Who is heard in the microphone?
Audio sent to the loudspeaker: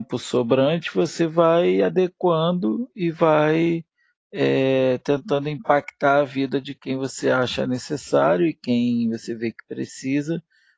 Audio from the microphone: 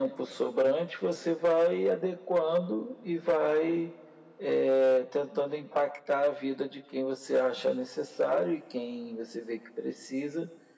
echo only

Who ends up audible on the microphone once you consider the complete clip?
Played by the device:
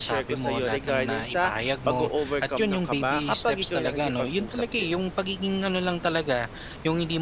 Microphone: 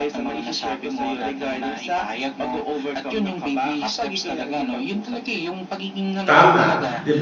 both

